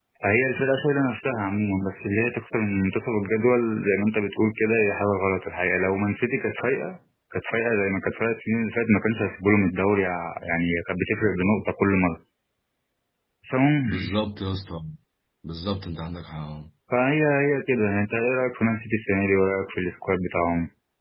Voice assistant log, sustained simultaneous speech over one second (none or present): none